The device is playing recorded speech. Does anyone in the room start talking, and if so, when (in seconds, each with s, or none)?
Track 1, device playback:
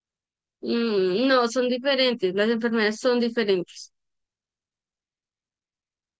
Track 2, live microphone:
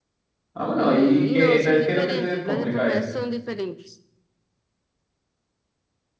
0.5 s